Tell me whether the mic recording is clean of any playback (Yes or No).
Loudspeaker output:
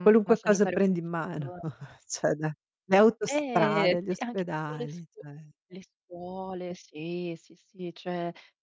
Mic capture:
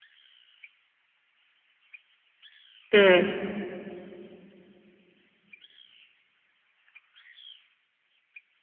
Yes